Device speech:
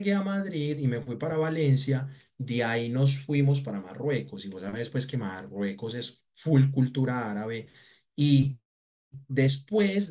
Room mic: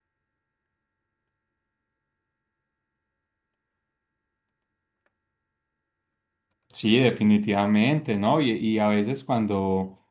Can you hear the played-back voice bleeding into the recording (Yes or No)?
No